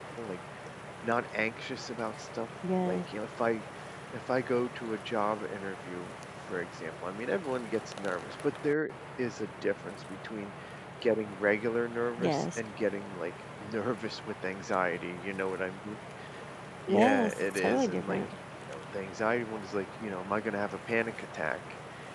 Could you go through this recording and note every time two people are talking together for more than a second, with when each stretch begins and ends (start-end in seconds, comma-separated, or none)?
16.9-18.2